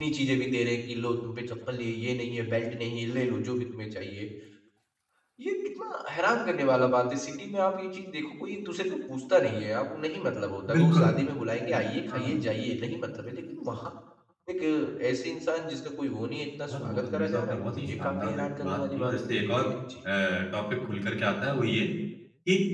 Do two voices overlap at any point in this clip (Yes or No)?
Yes